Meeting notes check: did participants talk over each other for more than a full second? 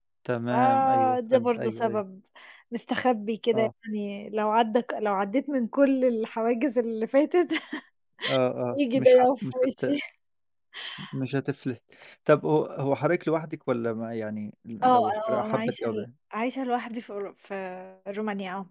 Yes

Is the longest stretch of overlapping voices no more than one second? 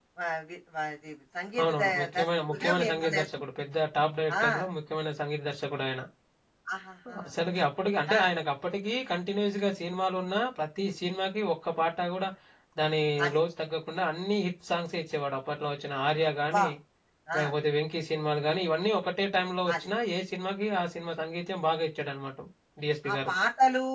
No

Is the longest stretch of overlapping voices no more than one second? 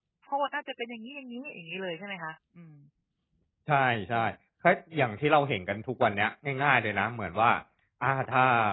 Yes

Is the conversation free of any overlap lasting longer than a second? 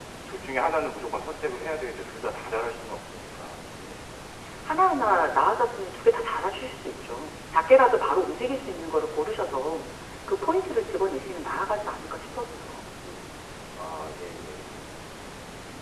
Yes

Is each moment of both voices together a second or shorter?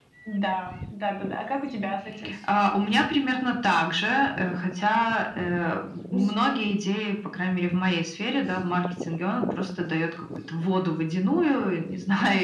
Yes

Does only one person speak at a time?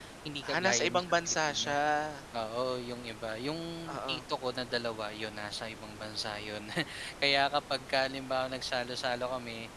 No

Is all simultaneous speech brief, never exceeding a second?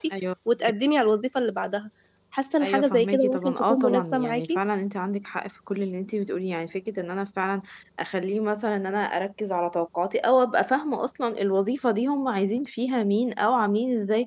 No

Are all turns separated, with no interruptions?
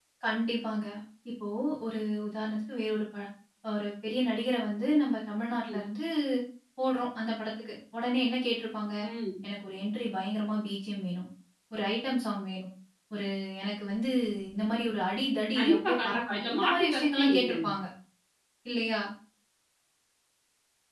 No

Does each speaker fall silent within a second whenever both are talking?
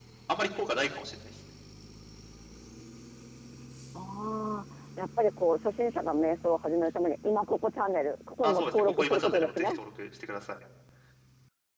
No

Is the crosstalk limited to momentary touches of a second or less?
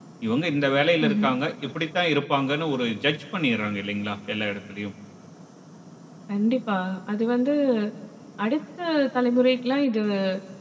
Yes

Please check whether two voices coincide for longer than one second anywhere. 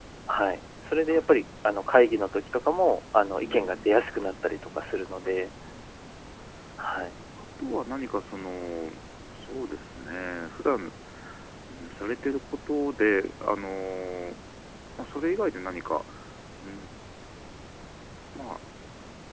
Yes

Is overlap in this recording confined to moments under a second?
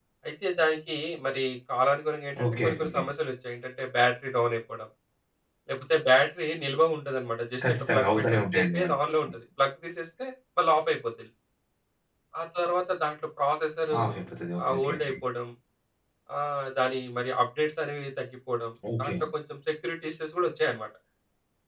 No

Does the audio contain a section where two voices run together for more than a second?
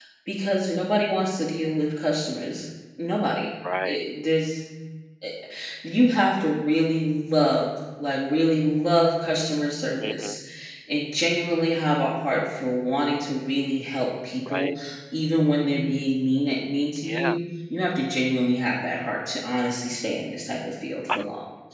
No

